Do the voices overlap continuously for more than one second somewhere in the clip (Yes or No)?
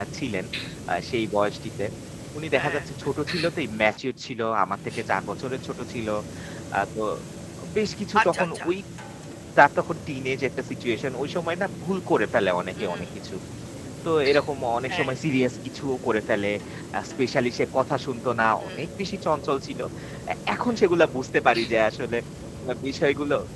No